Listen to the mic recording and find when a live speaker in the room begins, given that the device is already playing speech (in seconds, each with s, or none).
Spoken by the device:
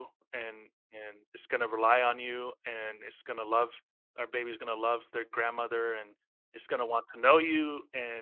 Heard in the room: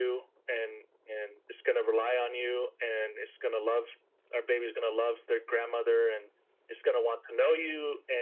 none